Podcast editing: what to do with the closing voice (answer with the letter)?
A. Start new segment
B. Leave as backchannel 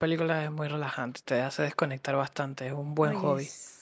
A